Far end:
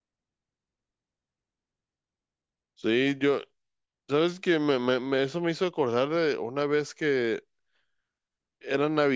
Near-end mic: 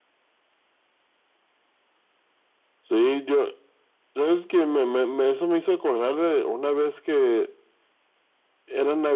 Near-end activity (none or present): none